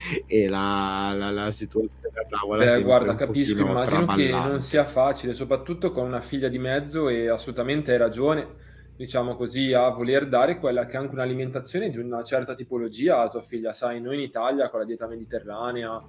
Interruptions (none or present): present